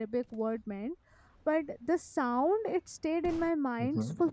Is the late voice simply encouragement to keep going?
Yes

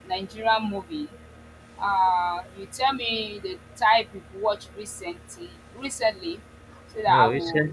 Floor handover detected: Yes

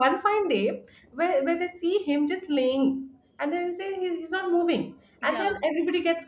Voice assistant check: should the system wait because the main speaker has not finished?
Yes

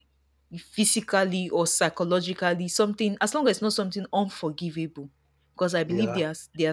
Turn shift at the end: No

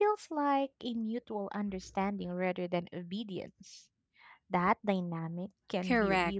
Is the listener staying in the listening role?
No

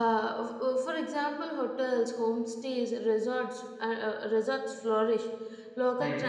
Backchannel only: Yes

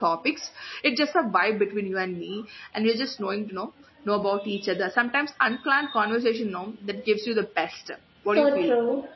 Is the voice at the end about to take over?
Yes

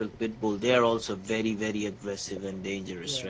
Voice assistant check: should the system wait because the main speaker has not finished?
No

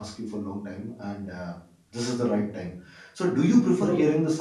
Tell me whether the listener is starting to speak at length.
No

